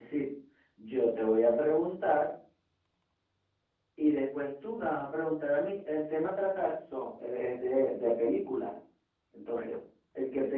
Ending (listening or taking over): listening